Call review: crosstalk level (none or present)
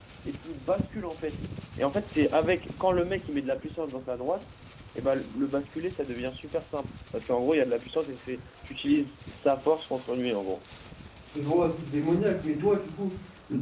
none